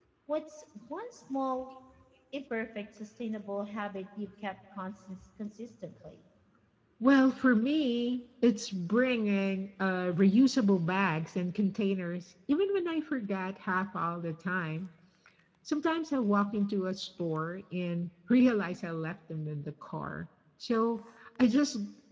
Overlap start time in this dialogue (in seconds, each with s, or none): none